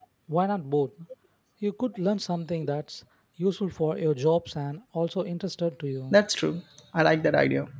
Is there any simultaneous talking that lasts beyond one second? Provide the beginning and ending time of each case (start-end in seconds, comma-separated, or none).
none